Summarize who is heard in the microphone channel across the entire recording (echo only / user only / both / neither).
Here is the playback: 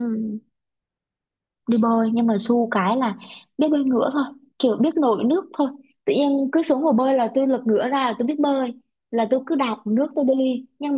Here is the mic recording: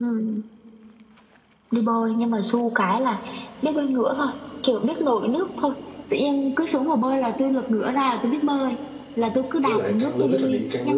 both